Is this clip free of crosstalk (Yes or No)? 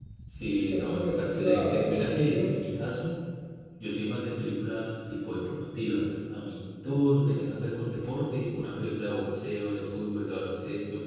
No